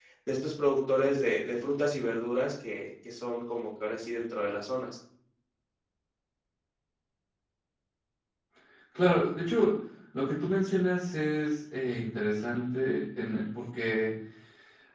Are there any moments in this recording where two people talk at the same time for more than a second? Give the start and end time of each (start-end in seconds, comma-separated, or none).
none